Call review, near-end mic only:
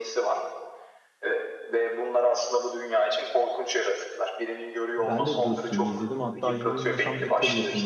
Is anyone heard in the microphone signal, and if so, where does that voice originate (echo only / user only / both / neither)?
both